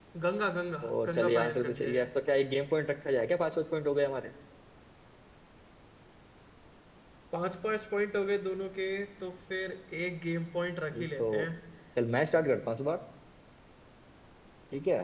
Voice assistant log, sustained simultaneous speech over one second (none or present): present